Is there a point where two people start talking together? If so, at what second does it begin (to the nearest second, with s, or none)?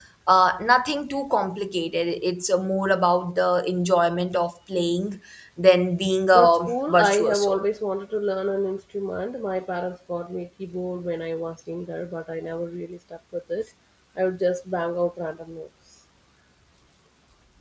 6 s